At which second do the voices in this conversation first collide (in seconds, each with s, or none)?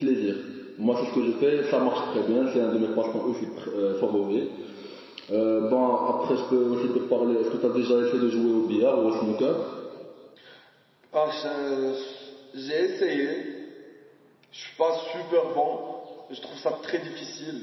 none